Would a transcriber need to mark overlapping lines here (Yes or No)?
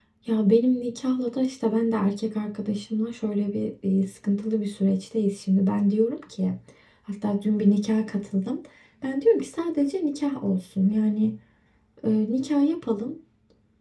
No